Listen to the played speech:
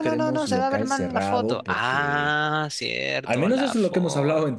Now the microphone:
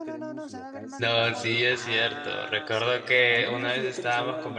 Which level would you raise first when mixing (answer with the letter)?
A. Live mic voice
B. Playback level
B